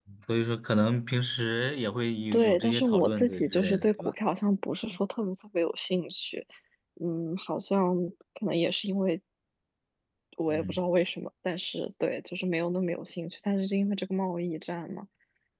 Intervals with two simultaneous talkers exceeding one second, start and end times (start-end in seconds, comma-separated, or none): 2.3-4.1